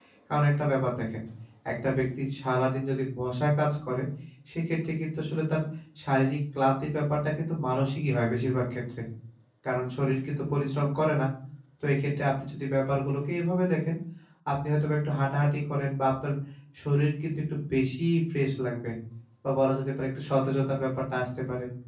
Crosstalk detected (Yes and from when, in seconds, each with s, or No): No